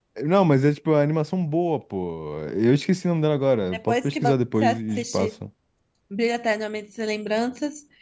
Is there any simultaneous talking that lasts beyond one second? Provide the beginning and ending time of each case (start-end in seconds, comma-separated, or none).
3.7-5.3